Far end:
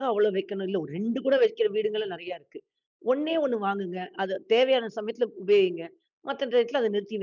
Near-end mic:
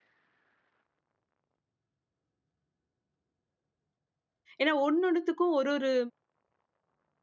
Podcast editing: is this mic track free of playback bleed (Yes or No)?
Yes